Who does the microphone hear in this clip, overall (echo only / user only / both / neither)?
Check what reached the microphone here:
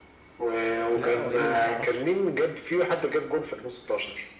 both